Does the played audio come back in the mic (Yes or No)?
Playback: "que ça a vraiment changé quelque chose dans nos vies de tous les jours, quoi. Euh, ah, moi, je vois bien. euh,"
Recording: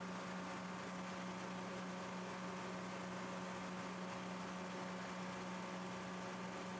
No